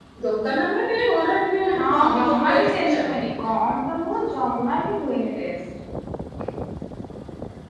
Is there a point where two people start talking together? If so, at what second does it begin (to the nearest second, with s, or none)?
2 s